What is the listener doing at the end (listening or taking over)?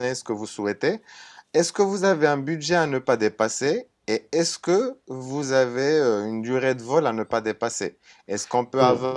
listening